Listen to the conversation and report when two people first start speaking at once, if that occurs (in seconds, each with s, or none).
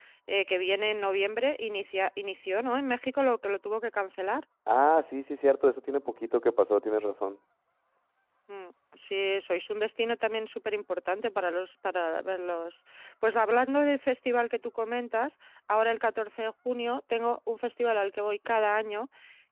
none